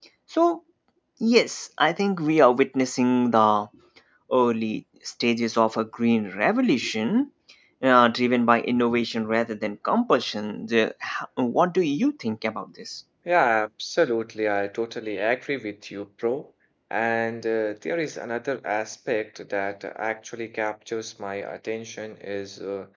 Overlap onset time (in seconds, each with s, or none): none